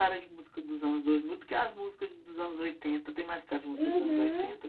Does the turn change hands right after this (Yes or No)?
Yes